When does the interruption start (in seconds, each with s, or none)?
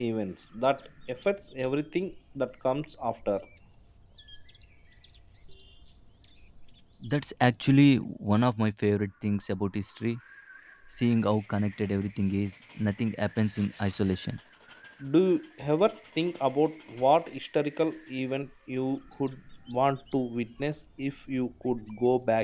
none